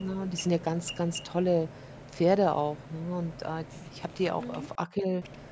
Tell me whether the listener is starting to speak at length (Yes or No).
No